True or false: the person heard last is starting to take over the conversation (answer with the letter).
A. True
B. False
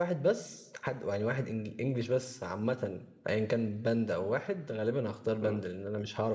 B